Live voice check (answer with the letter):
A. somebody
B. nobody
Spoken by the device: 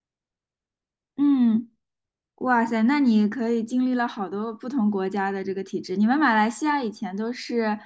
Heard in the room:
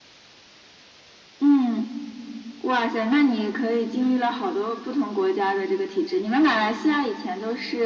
B